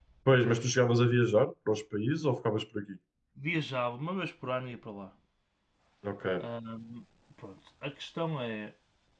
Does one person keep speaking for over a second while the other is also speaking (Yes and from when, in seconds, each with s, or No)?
No